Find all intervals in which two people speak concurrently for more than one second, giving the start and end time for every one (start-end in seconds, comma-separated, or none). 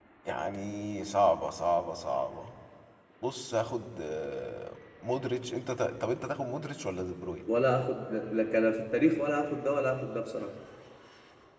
none